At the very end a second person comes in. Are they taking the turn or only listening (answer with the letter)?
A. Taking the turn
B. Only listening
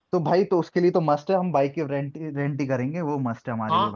A